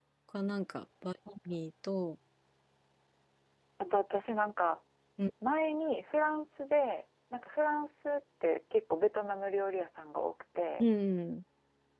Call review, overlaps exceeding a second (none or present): none